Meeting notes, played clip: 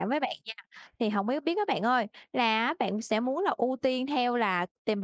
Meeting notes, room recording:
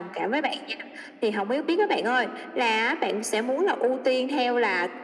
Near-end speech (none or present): none